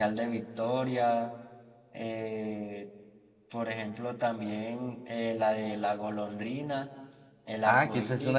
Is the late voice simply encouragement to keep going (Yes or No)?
No